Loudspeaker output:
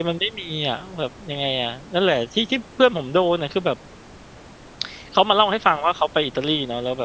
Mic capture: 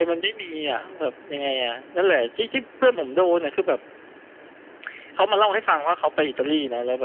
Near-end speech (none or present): none